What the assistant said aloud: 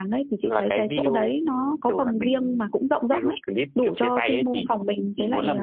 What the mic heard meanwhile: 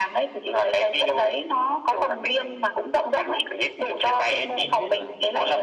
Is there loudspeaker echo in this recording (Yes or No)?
Yes